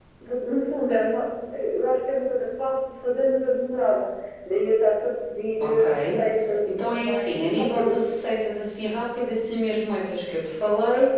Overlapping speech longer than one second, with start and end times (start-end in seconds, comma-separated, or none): 6.7-8.0